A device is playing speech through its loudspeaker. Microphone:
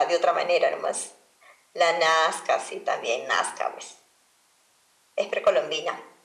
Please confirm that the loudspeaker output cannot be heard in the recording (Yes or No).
No